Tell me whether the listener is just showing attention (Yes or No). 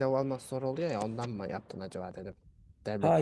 No